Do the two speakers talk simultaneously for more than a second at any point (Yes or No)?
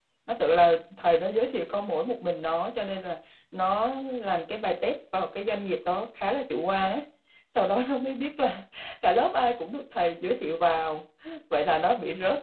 No